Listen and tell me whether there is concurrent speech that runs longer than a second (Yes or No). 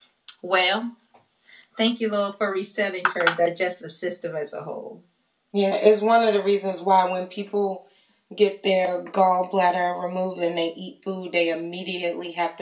No